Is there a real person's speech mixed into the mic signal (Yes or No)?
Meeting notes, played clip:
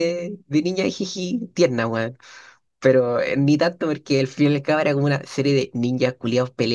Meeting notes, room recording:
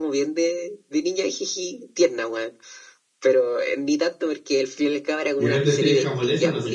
Yes